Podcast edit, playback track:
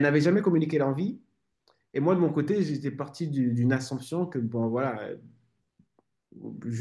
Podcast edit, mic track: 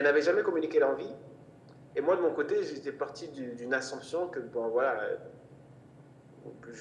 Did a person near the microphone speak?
No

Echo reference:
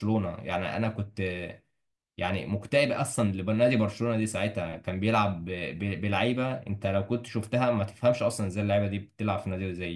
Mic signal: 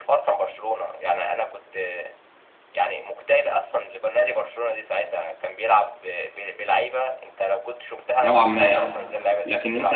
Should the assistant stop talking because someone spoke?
Yes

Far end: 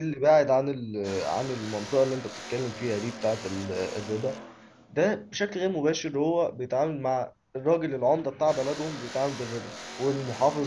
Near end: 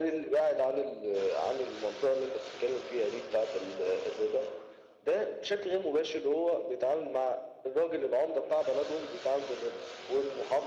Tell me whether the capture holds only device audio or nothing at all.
Yes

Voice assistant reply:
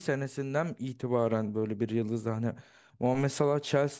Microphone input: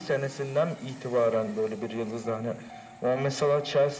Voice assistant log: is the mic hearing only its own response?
Yes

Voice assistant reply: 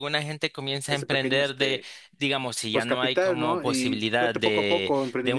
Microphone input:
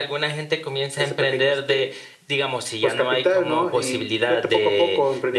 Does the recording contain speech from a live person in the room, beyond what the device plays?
No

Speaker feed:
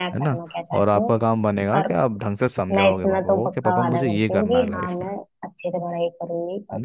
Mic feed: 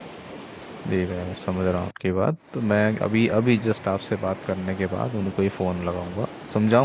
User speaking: Yes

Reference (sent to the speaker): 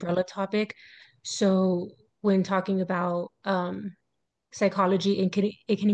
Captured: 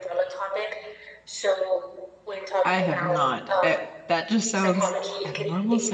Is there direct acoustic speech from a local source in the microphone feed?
Yes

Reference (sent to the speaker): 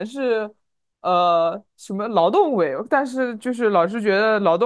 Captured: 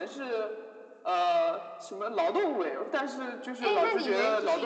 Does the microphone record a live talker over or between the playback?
Yes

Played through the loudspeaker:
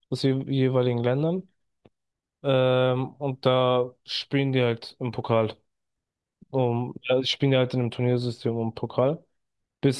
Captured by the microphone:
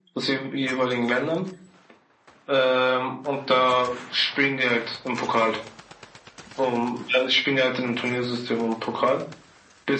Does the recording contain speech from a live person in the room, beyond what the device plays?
No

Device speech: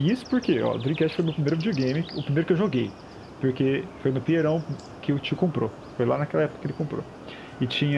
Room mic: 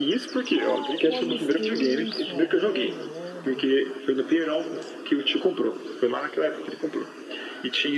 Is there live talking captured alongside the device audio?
Yes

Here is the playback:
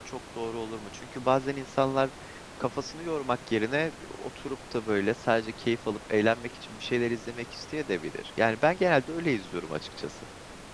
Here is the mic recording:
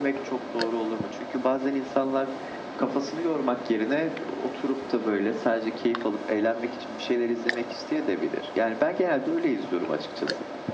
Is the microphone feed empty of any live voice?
Yes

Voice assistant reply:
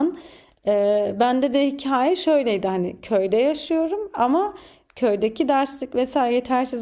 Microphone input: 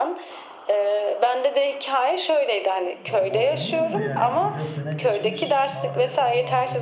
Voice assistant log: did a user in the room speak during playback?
Yes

